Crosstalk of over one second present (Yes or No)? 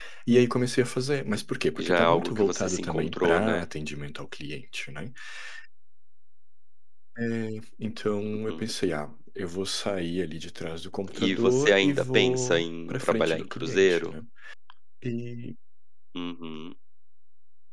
Yes